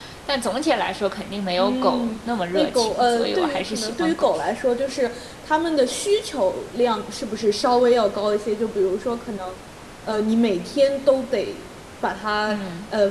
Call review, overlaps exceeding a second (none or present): present